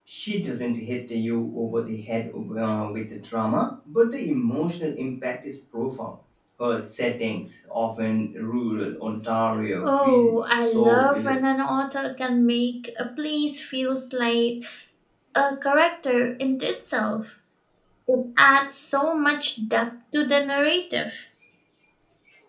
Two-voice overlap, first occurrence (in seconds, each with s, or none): 9.8 s